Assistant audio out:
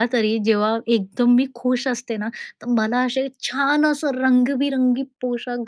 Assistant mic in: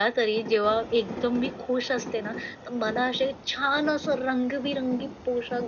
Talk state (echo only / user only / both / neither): echo only